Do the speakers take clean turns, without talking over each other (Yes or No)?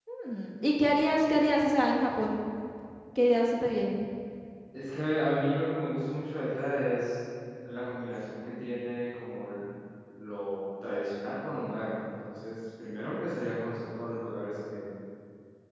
Yes